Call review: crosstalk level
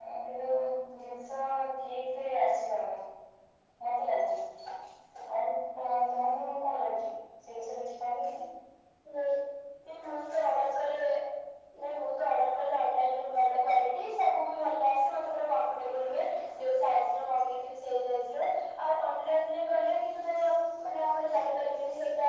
none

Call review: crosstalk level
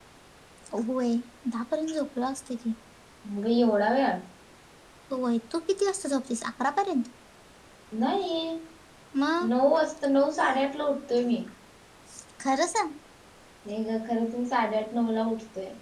none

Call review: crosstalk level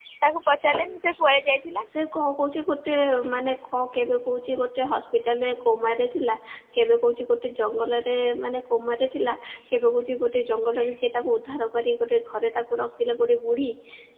none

